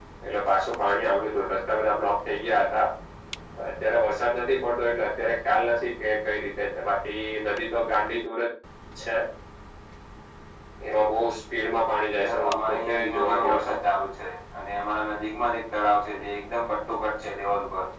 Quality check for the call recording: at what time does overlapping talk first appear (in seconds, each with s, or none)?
12.2 s